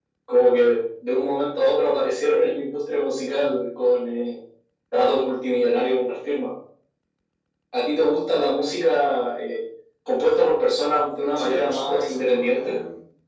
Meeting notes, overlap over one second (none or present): present